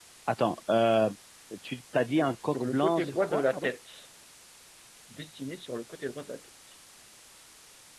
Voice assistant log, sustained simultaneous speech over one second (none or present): present